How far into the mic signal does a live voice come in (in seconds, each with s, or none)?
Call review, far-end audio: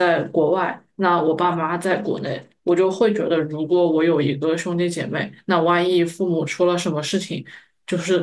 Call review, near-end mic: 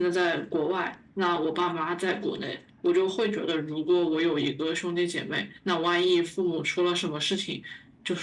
none